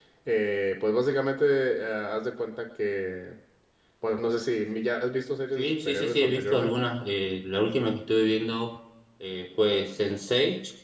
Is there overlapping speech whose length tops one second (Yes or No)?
Yes